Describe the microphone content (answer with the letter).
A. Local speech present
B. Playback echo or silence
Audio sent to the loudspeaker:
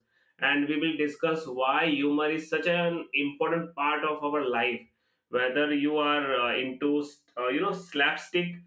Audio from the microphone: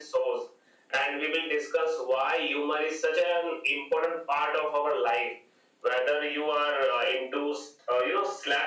B